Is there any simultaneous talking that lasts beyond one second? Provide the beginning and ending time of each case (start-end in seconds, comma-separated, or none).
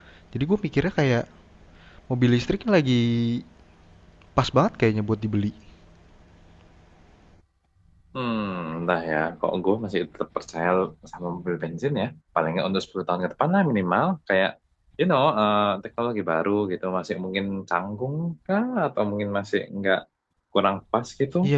none